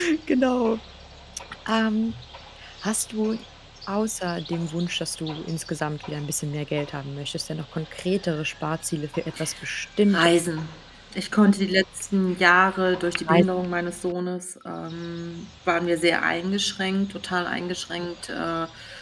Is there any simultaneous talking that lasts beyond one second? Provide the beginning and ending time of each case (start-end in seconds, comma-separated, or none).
none